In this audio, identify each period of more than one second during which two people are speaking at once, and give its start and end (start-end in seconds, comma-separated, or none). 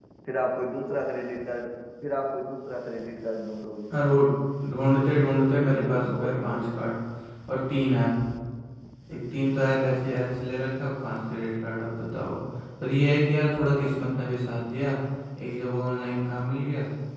5.5-6.9